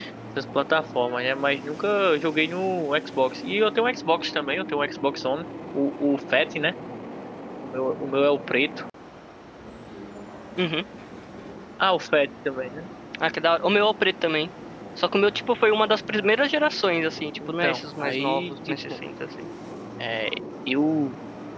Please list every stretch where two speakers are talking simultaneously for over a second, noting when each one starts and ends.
17.5-18.8

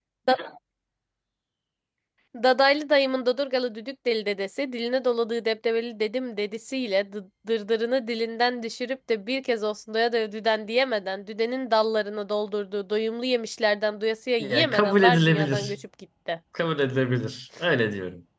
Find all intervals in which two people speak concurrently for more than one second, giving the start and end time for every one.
14.4-15.8

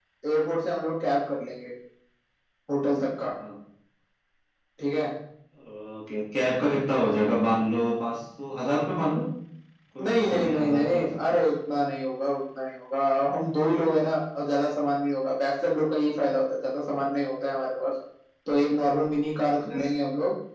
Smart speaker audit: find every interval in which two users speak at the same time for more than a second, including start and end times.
10.1-11.4

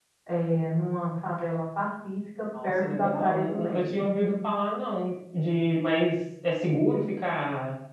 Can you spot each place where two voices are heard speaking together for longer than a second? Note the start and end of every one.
2.6-4.0

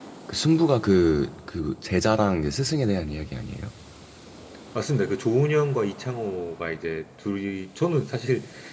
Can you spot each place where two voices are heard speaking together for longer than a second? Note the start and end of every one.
none

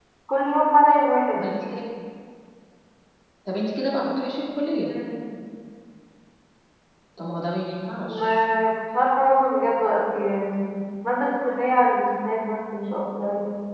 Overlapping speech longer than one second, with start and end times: none

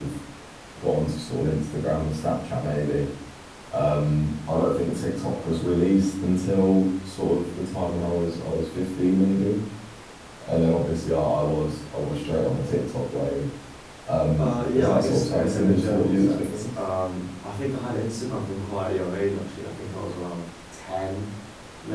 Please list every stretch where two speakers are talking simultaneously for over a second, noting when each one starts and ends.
14.4-16.7

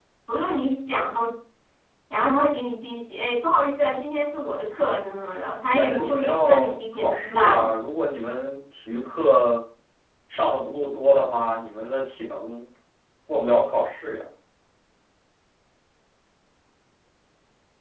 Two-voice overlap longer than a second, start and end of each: 5.8-7.7

